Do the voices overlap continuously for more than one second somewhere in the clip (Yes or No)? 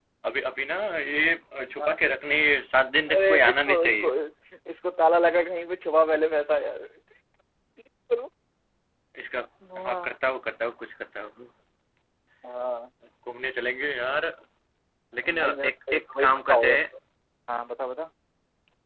Yes